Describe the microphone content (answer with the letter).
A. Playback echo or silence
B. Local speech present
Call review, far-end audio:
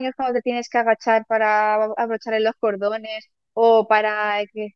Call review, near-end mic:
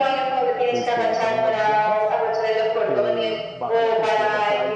B